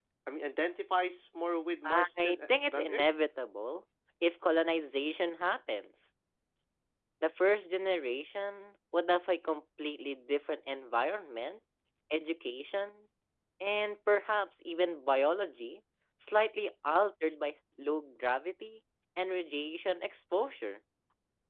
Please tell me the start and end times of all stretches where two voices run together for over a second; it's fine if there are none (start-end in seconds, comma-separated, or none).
1.8-3.1